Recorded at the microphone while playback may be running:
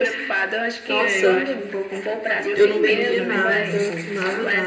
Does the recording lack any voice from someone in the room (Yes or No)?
No